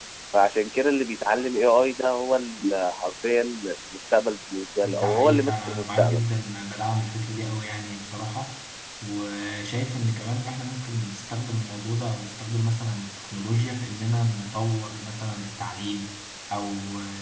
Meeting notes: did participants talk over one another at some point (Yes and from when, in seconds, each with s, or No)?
Yes, from 4.8 s